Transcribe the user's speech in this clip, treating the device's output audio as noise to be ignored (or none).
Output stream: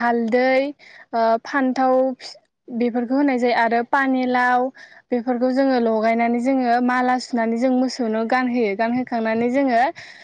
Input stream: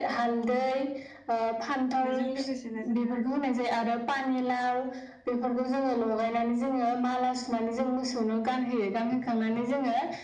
बेजों लोगोसेनो जोङो